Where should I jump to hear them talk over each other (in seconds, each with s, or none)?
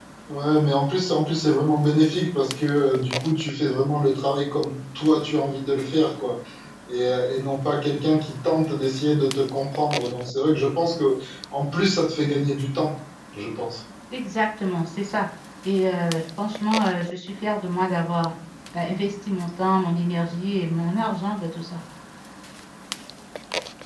none